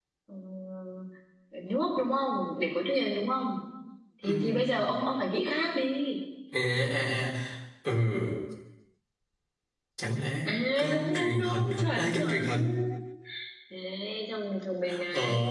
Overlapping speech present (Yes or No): Yes